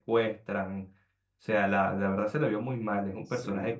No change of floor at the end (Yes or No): Yes